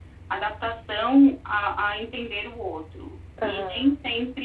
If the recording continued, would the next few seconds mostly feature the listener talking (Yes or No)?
No